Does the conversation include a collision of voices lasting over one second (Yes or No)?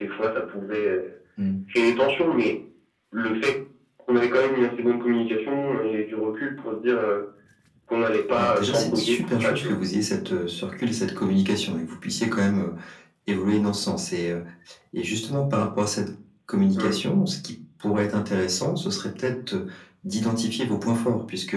Yes